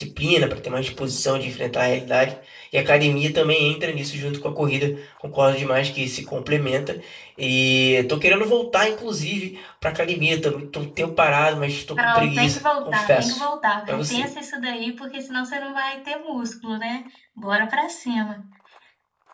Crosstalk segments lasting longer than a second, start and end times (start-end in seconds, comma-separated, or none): 12.0-13.4